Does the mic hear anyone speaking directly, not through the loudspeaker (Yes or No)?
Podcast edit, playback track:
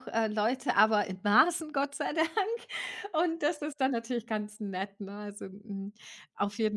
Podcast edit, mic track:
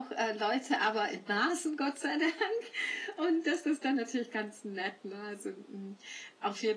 No